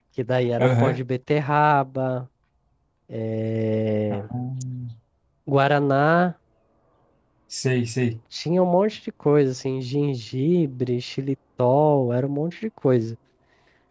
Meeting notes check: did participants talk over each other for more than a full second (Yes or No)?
No